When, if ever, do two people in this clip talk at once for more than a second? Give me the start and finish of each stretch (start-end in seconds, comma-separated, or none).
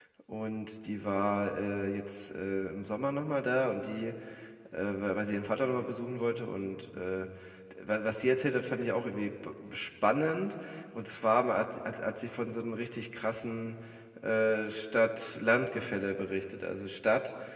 none